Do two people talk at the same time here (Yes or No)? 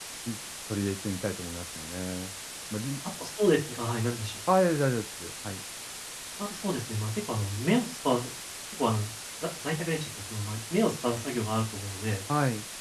No